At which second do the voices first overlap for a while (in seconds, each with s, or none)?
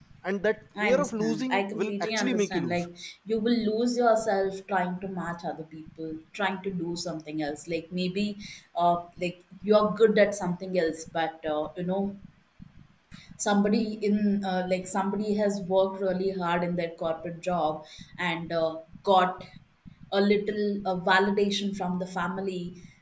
0.8 s